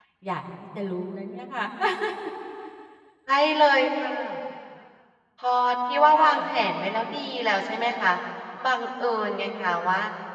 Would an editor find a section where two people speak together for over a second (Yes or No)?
No